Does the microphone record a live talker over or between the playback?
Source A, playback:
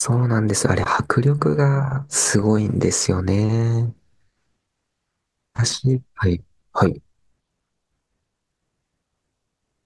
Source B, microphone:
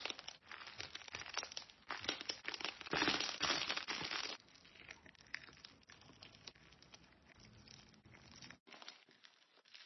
No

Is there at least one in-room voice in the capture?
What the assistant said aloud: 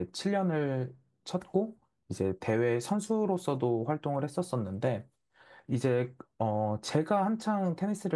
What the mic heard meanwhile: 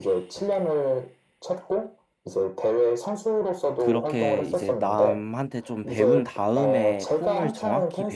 Yes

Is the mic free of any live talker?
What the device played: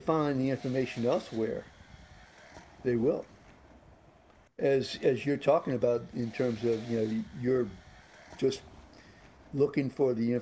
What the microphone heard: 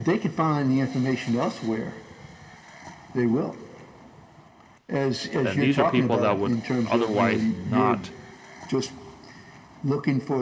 No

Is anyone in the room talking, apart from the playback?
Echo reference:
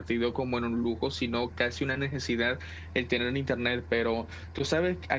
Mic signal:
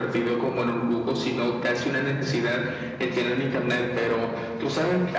No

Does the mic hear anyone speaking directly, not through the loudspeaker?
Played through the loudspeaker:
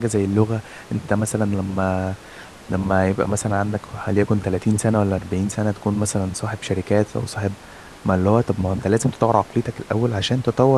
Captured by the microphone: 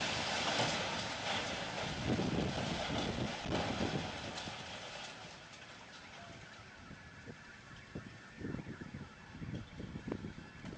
No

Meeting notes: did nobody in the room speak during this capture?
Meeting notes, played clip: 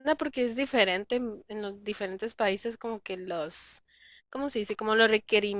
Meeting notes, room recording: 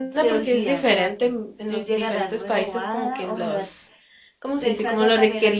No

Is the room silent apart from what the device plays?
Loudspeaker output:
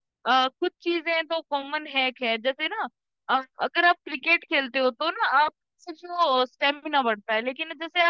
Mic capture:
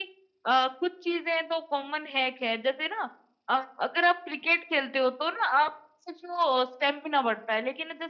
Yes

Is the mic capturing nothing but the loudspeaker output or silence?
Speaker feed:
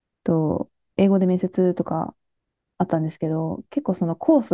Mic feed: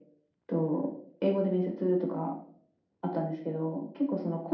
Yes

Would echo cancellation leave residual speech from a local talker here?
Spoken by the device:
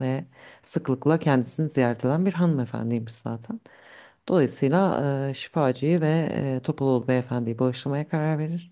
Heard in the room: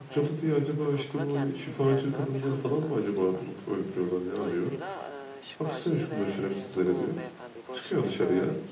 Yes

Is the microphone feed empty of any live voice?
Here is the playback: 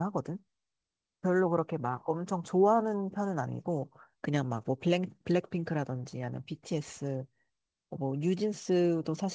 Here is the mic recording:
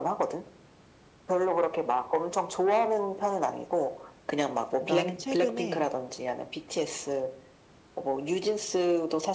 No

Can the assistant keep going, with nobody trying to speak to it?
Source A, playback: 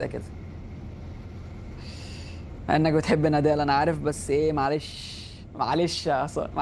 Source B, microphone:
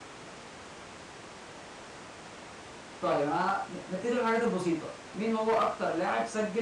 No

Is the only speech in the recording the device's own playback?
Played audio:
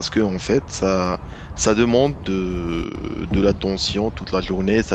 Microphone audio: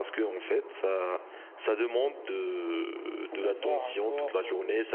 No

